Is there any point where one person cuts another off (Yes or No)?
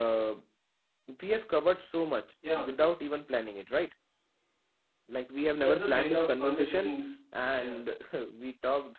Yes